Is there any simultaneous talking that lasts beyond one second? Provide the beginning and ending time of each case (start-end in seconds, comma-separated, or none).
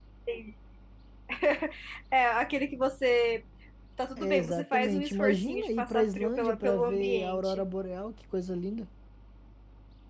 4.2-7.6